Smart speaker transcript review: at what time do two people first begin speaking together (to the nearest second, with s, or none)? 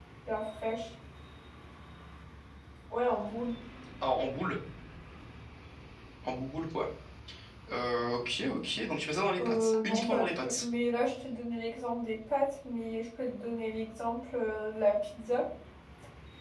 9 s